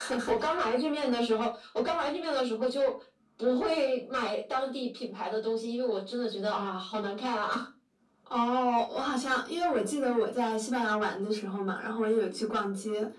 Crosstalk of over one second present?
No

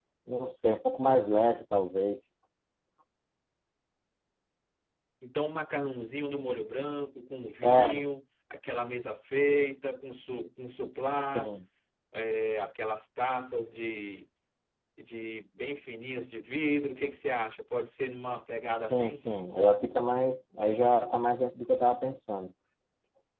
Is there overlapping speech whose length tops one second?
No

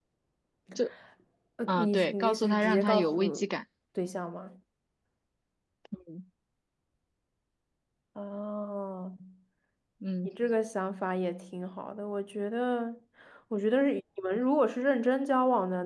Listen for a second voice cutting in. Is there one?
Yes, from 1.7 s

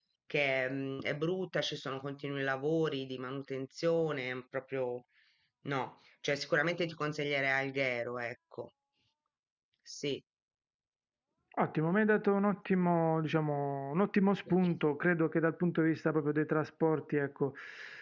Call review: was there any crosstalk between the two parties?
No

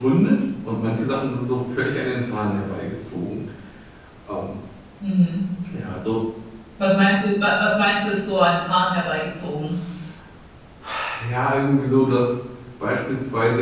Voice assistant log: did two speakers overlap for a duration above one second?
No

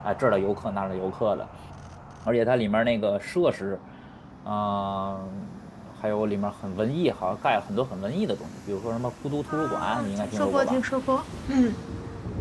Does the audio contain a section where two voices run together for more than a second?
Yes, from 9.5 s

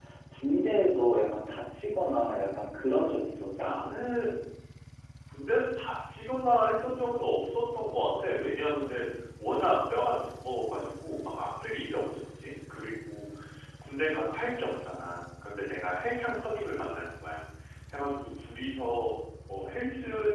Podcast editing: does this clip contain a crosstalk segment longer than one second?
No

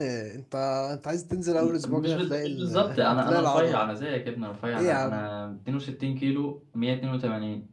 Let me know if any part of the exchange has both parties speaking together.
Yes, from 1.6 s

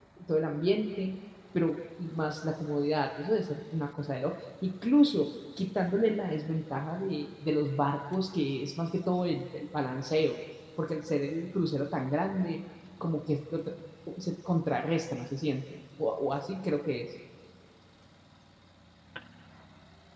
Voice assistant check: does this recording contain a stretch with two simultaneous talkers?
No

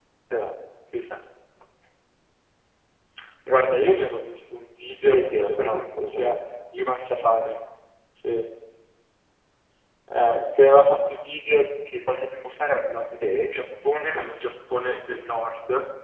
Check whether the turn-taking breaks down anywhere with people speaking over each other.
Yes, from 5.1 s

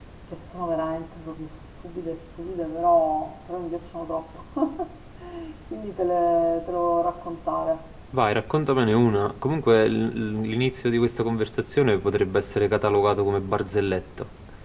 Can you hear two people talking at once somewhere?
No

